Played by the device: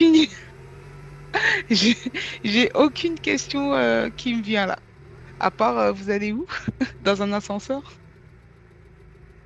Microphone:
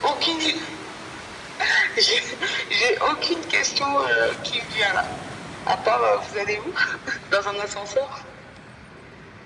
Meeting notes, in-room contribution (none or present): none